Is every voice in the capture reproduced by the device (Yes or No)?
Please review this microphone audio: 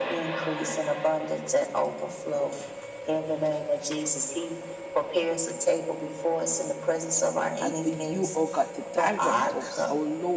No